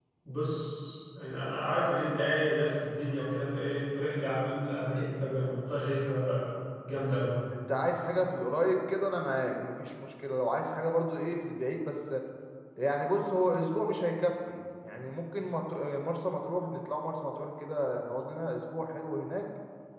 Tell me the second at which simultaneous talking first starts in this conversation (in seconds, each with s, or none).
none